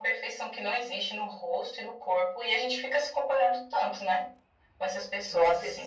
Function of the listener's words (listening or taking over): taking over